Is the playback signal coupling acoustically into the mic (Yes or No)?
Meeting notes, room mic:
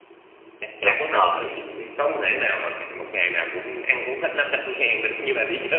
Yes